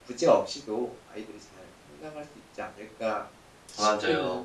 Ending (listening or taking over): taking over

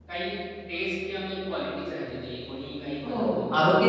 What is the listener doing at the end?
taking over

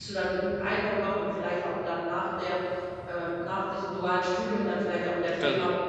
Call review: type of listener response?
listening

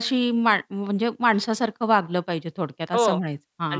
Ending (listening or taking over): taking over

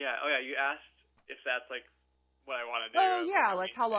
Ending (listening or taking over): taking over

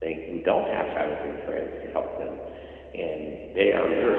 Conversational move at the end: listening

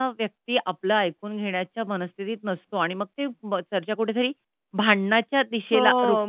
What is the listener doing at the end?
listening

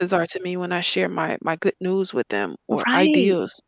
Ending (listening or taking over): taking over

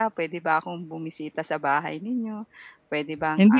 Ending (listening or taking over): taking over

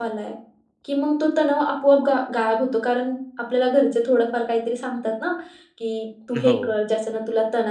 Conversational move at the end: listening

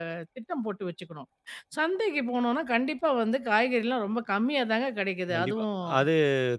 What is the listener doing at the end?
taking over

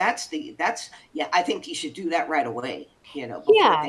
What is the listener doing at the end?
taking over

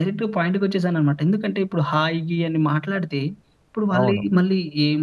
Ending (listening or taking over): listening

